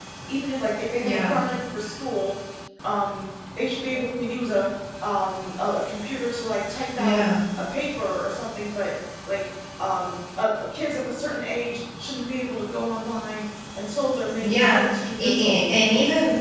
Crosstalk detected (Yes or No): Yes